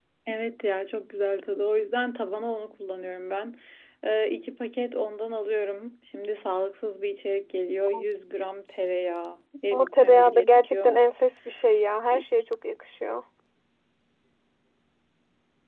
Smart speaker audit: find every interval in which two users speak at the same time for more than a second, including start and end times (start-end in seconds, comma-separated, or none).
9.7-11.0